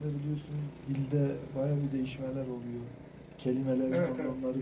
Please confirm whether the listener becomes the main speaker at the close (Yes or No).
Yes